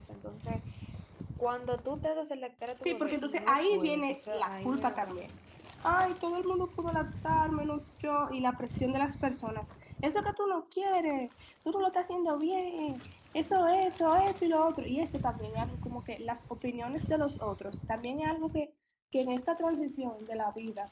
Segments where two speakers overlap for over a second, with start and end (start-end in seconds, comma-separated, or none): 2.9-5.2